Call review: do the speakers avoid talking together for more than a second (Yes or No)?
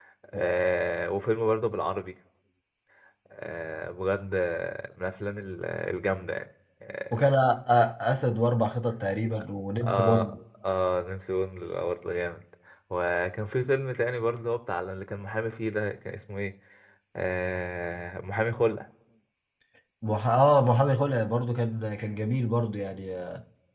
Yes